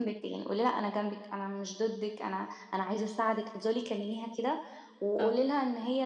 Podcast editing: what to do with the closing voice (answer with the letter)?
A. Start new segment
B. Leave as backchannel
B